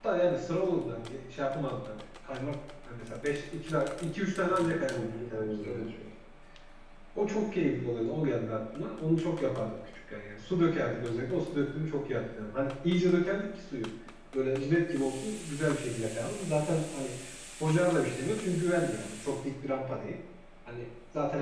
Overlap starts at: 4 s

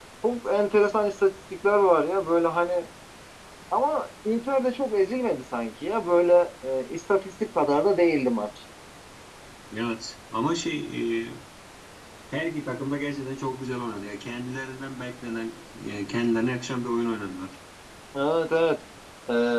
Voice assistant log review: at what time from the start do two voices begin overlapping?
none

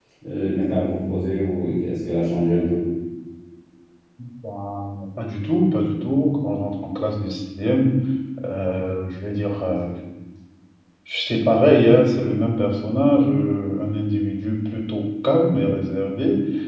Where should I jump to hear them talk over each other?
none

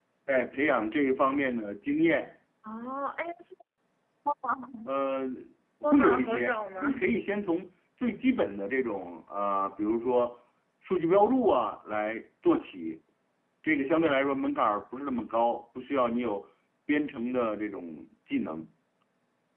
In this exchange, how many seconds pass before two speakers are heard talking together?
6 s

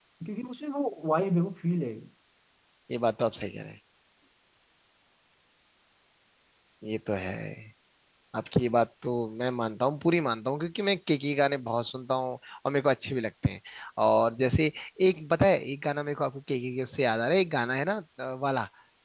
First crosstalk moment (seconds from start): none

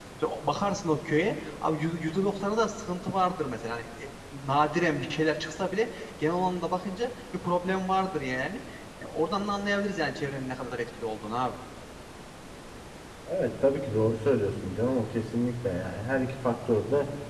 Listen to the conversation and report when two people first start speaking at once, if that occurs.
none

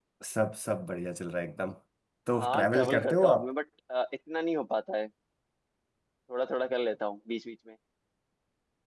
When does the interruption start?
2 s

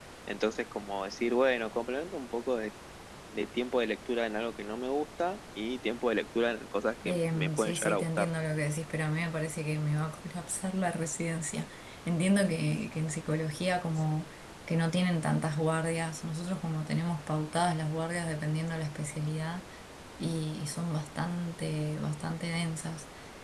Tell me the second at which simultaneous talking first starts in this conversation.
7 s

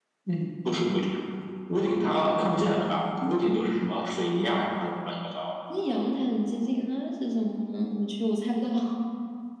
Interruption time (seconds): none

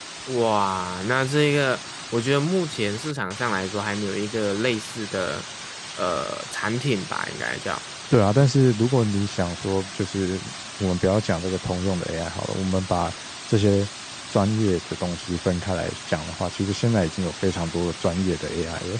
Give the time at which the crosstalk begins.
none

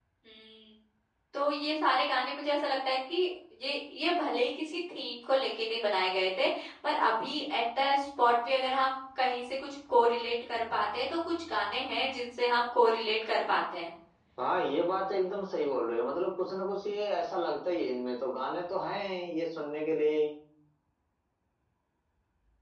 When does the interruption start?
none

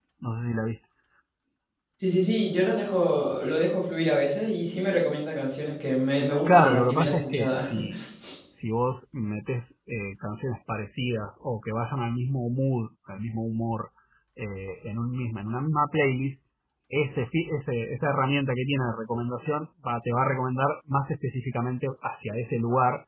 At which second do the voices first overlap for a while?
6 s

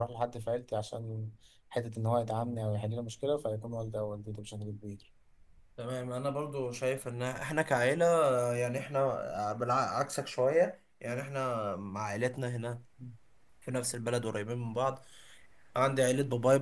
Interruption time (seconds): none

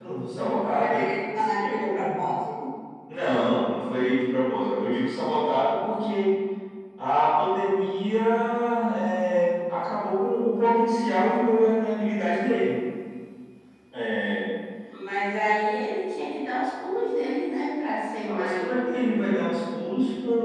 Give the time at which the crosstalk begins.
1 s

